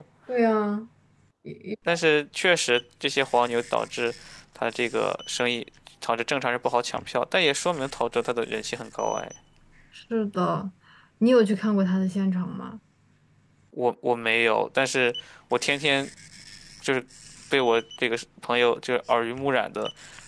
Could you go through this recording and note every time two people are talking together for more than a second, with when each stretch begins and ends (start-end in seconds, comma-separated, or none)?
none